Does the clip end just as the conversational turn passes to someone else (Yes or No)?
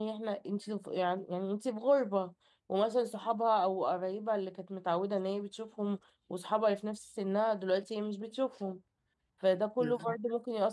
No